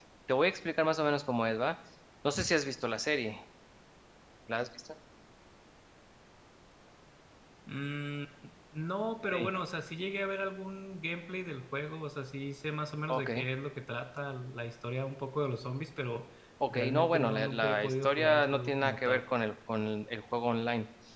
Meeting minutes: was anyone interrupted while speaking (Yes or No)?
Yes